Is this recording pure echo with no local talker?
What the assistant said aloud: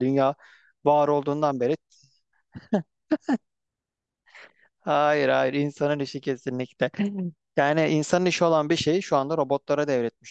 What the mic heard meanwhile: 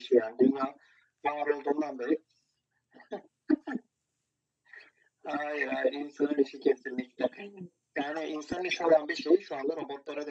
Yes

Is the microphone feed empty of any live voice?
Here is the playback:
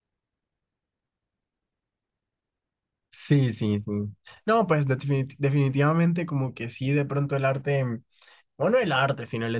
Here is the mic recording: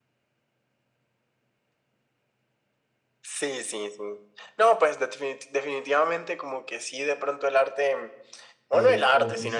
No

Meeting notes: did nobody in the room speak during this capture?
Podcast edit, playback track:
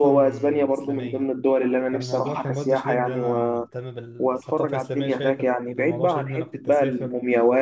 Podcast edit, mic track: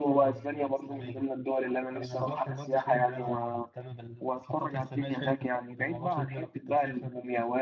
Yes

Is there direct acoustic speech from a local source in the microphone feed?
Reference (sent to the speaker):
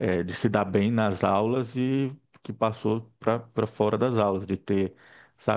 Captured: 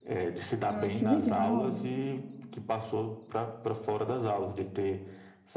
Yes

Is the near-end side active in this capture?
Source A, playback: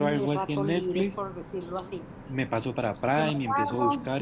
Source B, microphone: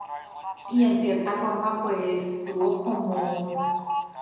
Yes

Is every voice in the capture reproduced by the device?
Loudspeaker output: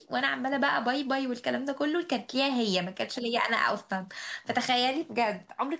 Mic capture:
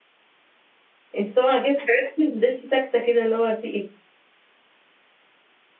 No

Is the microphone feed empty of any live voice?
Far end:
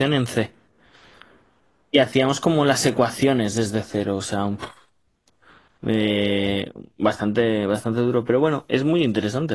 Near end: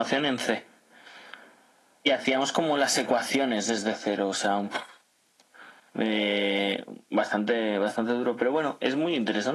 Yes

